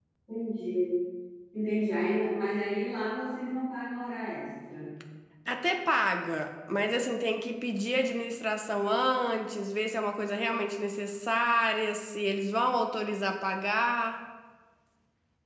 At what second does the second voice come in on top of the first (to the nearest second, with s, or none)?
none